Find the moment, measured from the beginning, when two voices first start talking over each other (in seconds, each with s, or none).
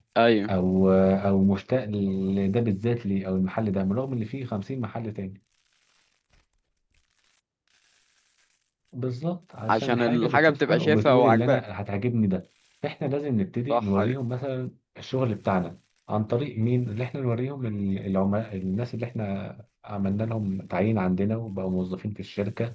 9.7 s